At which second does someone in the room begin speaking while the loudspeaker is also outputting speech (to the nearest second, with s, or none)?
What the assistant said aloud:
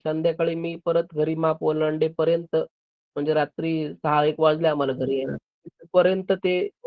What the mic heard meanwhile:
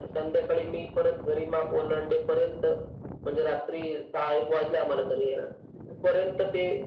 none